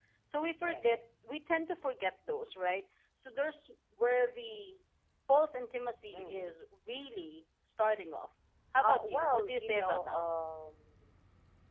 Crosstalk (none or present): present